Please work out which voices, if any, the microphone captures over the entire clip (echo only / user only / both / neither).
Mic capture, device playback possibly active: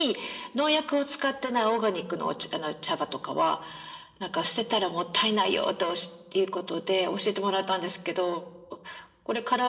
echo only